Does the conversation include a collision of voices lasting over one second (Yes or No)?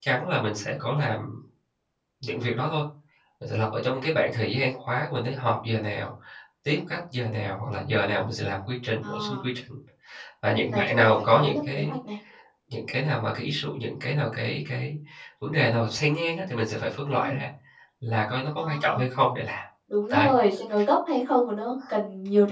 Yes